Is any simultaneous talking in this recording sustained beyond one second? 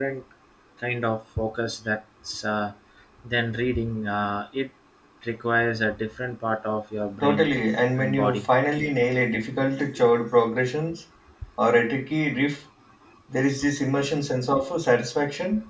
No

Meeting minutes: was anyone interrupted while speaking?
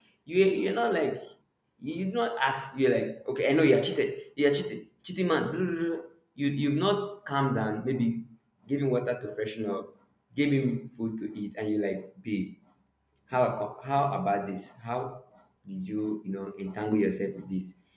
No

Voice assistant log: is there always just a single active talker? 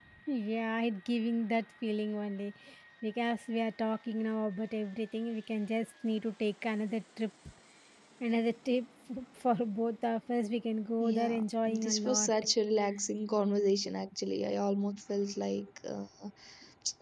No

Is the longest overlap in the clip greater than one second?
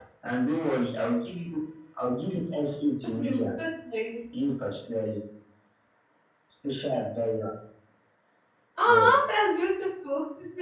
No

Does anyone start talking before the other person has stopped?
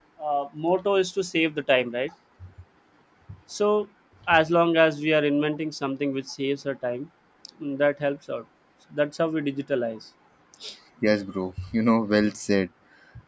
No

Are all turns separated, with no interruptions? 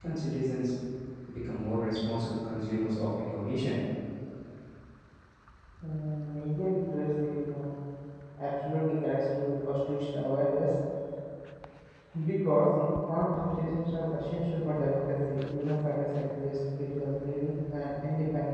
Yes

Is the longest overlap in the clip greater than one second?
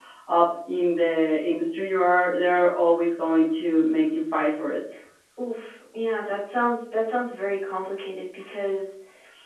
No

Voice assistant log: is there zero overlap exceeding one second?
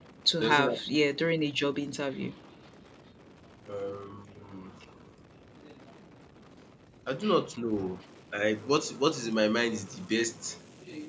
Yes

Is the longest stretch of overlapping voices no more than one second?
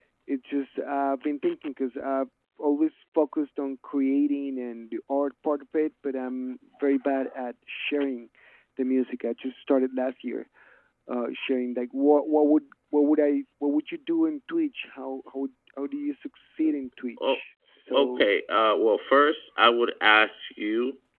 Yes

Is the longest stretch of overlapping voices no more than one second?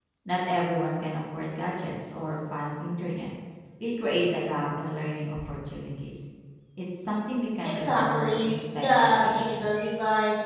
No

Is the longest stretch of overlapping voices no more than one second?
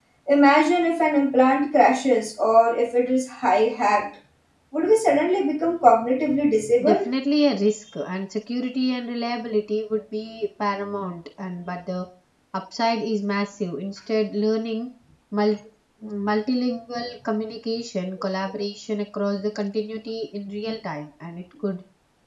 Yes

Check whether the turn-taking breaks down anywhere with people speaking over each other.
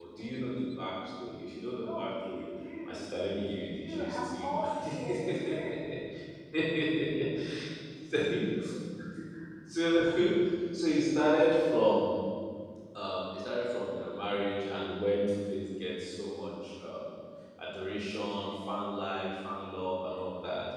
Yes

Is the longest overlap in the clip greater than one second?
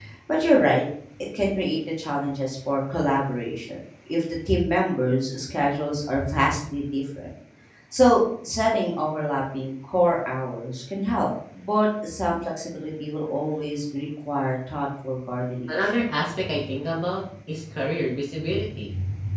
No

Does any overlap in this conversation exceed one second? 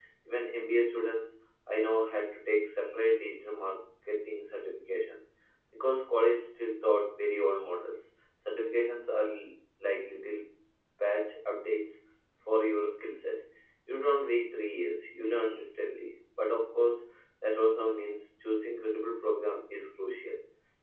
No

